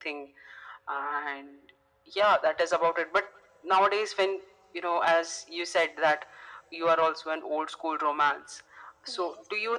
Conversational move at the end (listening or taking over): listening